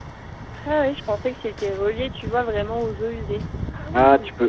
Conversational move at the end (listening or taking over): taking over